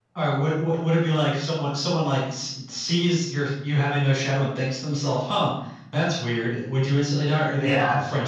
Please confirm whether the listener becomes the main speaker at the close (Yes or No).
Yes